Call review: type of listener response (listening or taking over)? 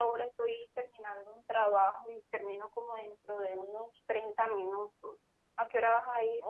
taking over